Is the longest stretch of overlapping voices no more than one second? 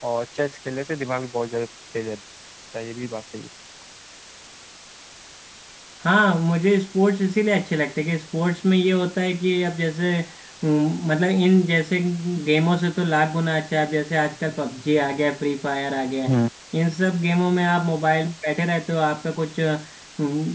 Yes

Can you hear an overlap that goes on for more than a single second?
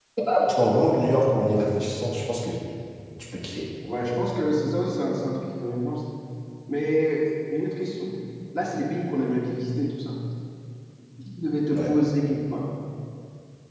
No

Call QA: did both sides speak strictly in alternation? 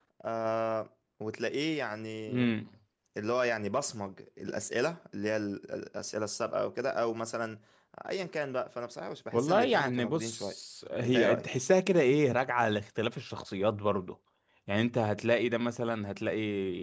No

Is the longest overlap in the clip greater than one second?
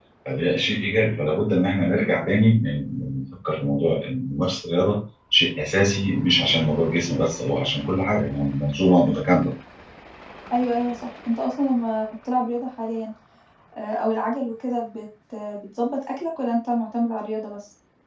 No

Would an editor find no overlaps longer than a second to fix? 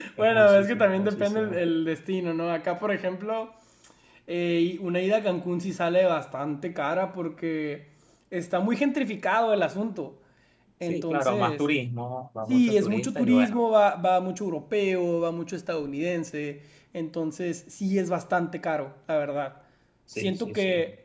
No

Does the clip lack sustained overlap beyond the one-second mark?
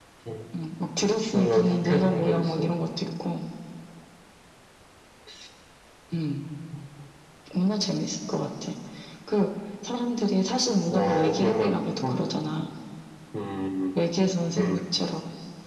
No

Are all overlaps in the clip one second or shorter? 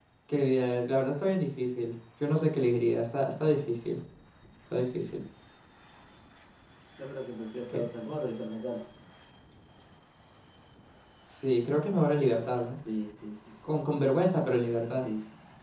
Yes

